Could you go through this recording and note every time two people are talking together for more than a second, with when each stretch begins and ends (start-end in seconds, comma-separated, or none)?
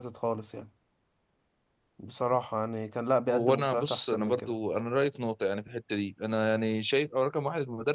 3.3-4.5